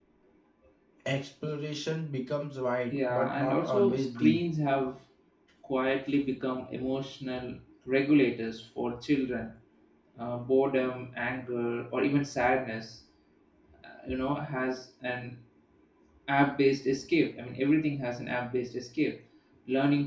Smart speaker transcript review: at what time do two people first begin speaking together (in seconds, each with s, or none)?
2.9 s